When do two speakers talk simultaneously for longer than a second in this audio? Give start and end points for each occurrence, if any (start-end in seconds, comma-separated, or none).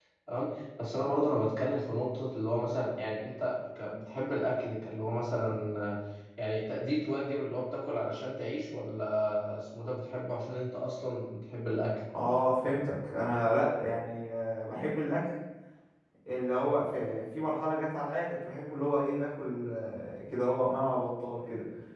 none